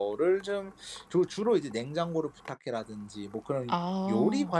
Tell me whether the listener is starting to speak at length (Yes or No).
No